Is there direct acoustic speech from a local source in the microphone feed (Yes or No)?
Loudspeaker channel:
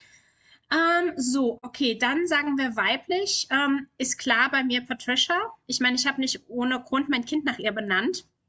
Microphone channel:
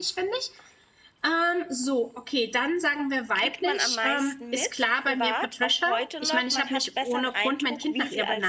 Yes